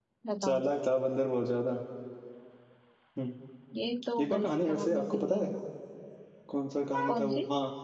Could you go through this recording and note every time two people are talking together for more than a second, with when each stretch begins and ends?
4.2-5.5

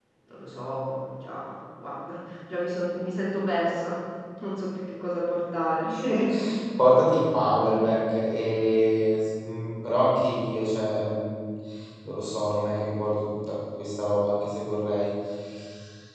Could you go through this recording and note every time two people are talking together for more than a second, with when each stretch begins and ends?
none

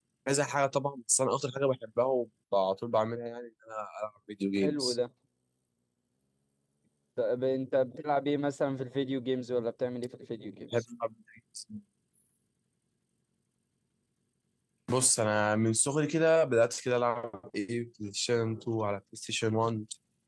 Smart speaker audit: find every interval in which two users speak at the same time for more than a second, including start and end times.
none

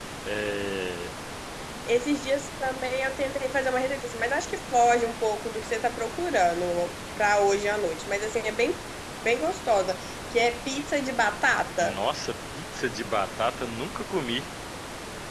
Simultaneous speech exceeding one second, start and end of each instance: none

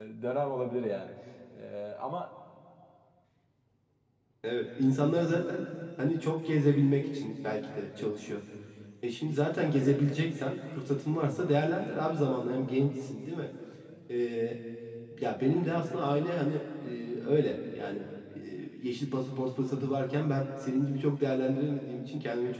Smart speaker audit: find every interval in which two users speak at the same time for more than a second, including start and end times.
none

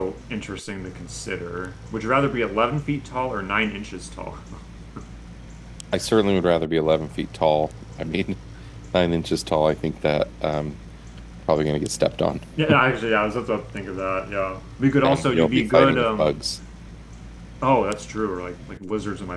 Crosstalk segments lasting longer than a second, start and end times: 15.0-16.4

